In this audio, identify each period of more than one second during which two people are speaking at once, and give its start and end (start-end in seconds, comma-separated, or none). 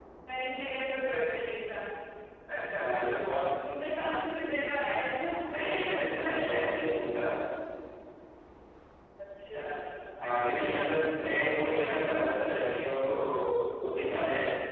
none